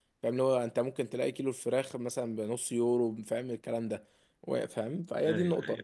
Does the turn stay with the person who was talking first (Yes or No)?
Yes